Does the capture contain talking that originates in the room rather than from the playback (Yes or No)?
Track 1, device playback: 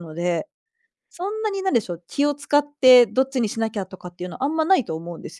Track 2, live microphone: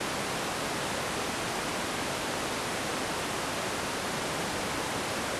No